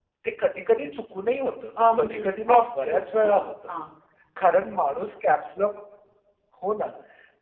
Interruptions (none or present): present